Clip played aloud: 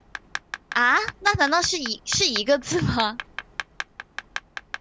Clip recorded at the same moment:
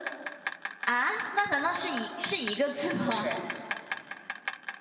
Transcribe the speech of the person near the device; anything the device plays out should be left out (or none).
不是，